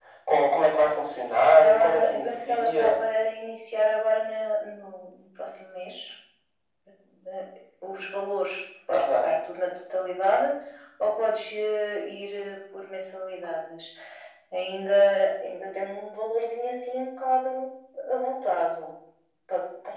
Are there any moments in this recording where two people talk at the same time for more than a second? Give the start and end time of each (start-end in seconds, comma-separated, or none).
1.6-3.0